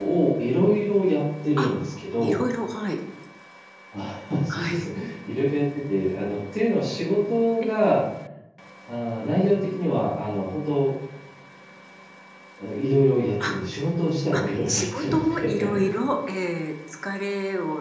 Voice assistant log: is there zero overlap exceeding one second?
No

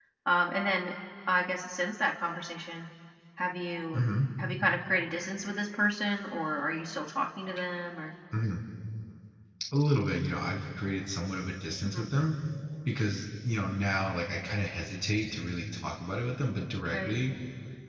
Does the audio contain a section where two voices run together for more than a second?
No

